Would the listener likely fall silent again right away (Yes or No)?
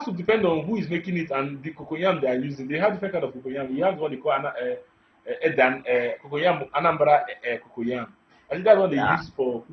Yes